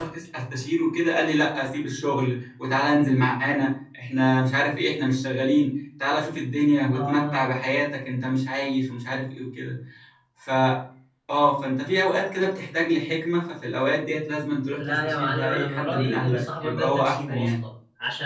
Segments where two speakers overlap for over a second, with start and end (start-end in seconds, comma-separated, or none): 14.8-17.5